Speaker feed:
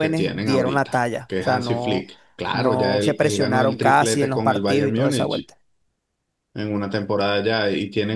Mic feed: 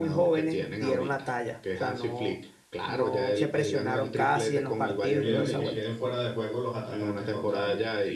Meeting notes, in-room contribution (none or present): present